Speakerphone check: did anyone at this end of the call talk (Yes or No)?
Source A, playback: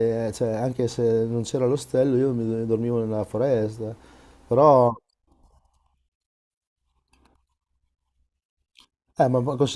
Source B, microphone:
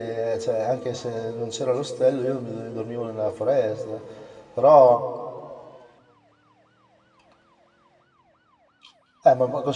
No